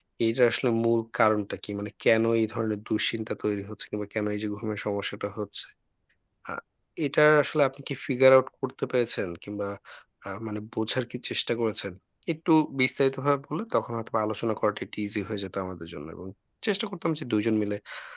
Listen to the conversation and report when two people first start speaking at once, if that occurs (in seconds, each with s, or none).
none